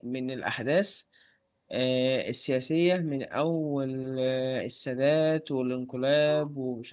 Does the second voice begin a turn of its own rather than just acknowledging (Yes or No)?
No